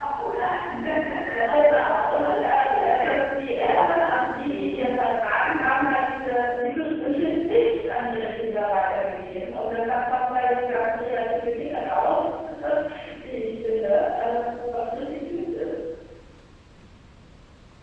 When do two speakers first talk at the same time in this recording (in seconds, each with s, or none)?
1.5 s